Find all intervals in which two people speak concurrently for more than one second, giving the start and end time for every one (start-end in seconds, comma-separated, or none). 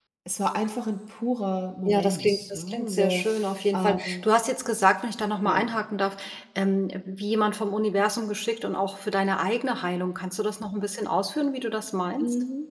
1.8-3.2